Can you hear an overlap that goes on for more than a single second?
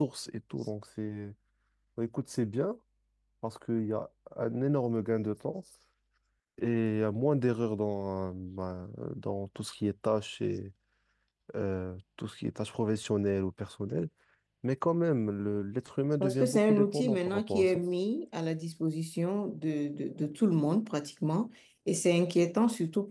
Yes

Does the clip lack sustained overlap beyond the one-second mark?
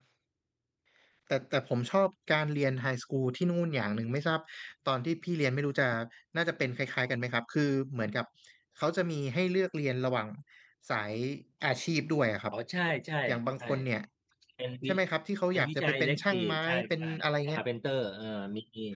No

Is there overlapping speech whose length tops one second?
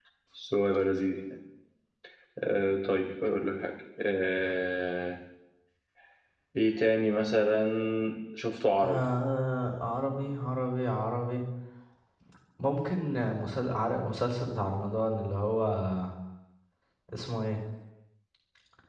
No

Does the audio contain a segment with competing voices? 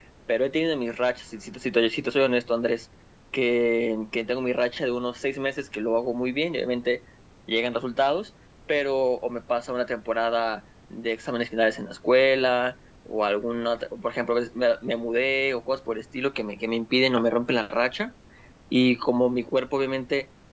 No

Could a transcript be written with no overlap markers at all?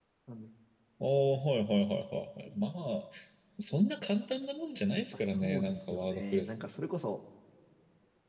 No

